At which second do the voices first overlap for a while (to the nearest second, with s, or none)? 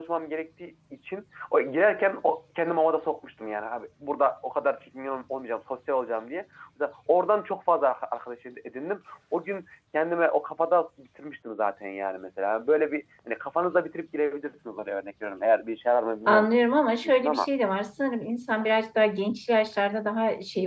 16 s